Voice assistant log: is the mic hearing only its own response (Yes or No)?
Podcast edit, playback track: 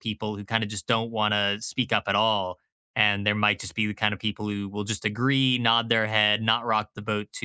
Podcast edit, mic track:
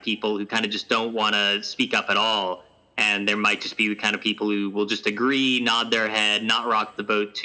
Yes